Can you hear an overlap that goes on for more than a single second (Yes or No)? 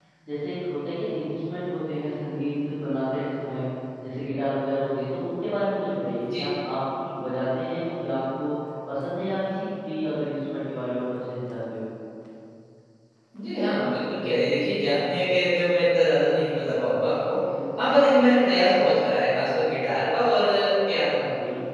No